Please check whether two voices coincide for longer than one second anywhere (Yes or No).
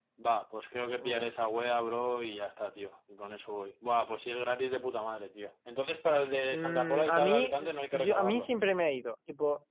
Yes